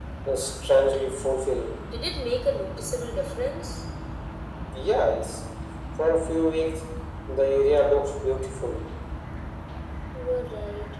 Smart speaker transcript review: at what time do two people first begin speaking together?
none

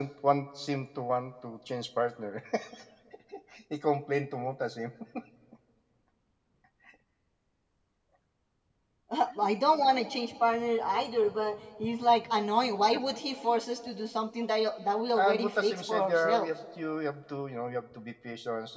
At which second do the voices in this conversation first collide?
15 s

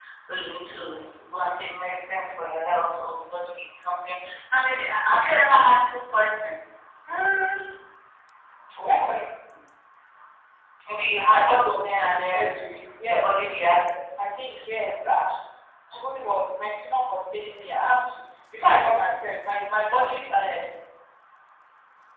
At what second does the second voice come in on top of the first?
11 s

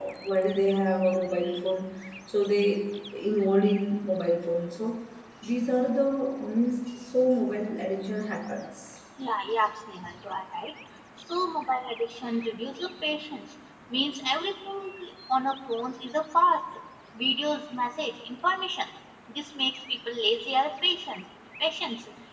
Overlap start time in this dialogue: none

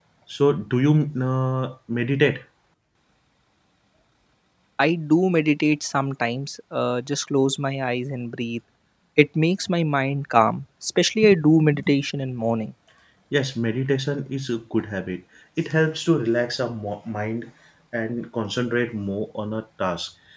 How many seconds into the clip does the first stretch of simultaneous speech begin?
none

